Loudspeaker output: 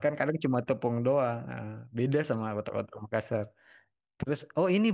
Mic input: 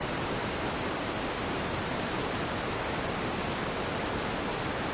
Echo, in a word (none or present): none